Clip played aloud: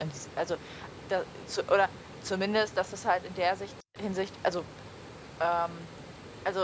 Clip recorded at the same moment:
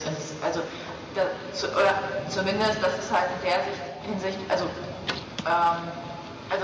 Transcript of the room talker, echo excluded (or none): none